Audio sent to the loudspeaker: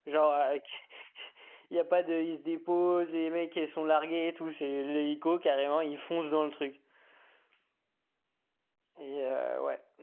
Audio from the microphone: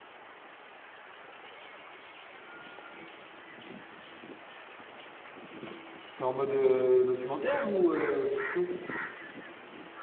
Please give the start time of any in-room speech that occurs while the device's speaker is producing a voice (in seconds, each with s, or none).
6.0 s